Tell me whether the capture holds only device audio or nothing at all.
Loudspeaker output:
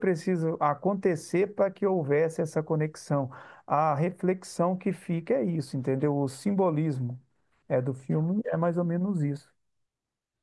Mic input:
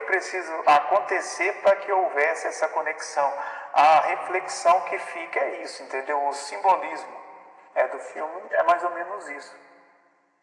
Yes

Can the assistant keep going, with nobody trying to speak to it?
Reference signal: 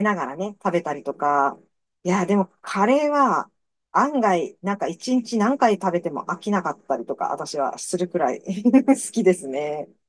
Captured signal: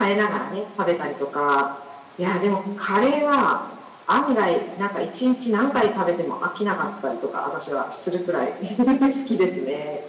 Yes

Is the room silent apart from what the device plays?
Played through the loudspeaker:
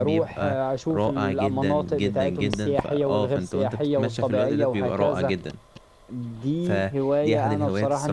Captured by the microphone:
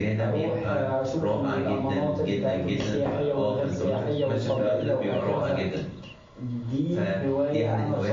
Yes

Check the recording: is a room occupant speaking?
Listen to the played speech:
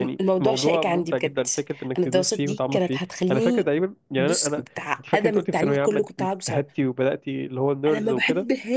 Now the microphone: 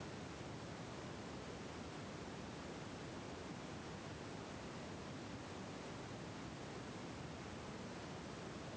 No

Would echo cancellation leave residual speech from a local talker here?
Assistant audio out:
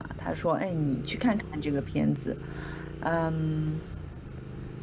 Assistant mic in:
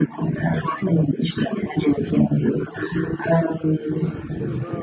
Yes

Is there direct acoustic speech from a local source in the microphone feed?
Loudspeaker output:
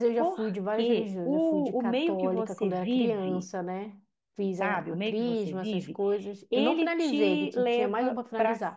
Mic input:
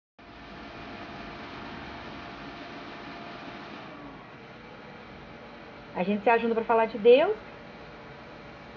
Yes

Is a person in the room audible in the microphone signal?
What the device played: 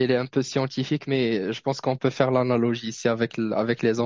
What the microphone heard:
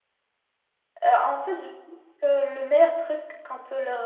Yes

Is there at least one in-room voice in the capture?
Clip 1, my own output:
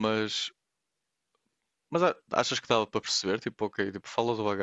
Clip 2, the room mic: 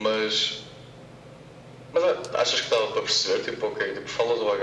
No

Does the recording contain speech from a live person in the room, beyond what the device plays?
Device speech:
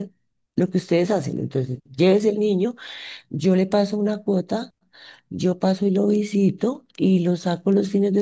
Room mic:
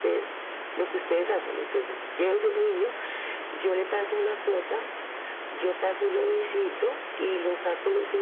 No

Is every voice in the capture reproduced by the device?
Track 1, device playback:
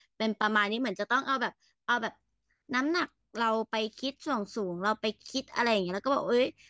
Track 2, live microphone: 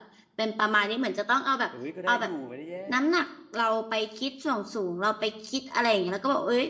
No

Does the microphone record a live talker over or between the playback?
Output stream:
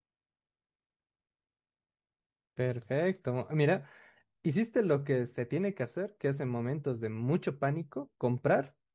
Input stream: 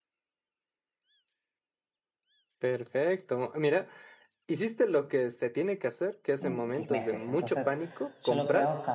Yes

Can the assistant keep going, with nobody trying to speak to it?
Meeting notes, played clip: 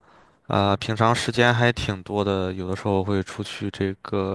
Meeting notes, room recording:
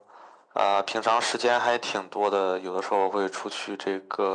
Yes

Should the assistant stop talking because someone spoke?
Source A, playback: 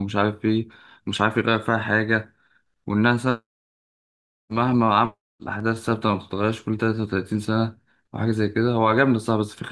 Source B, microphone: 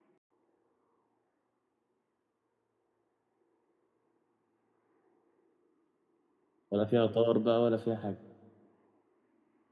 Yes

